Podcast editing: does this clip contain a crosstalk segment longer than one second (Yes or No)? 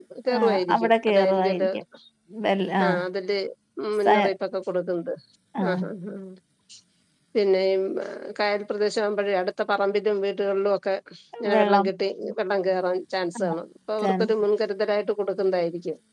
Yes